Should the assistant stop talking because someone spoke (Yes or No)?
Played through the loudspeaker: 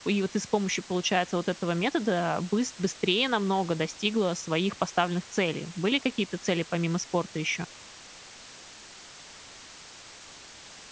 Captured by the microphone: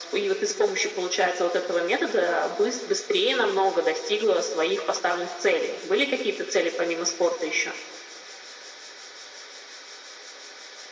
No